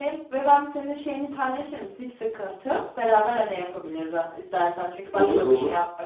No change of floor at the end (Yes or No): Yes